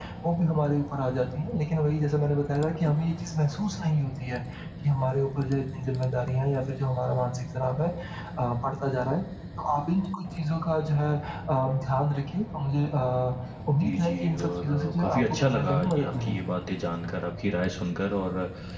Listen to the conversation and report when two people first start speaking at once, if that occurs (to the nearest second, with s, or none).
14 s